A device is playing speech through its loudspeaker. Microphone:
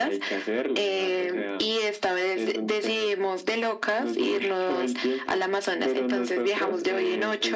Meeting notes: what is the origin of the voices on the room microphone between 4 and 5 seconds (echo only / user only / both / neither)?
echo only